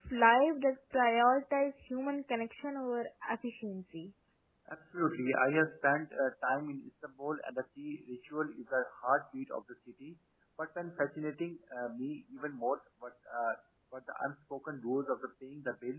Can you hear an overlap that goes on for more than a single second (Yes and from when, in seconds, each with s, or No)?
No